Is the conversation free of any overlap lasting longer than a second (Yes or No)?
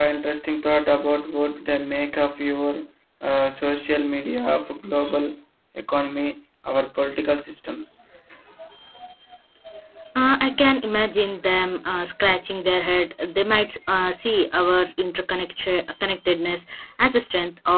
Yes